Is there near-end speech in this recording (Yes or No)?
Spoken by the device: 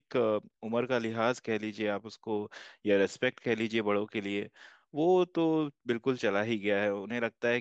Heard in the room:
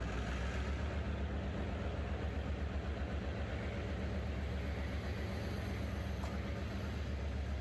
No